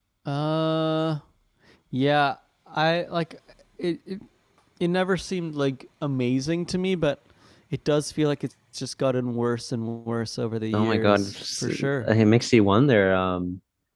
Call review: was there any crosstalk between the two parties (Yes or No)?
Yes